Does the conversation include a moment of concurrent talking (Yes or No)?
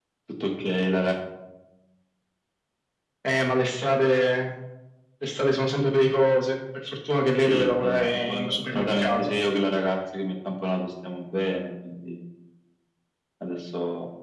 Yes